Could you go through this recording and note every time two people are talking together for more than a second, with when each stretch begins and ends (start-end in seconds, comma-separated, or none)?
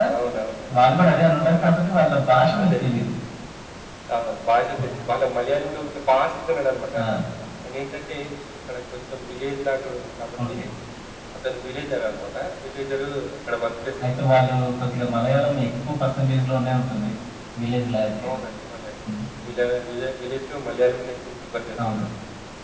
none